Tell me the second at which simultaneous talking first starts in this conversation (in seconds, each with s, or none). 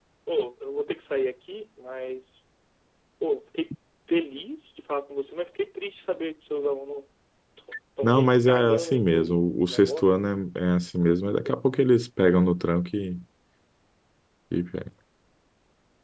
8.0 s